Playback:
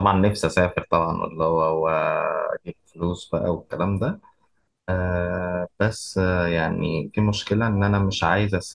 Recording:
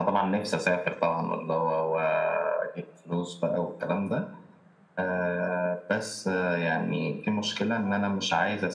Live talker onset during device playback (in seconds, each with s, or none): none